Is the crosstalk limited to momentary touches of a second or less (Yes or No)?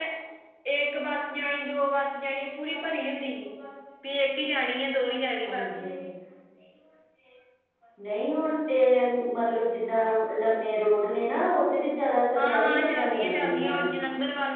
No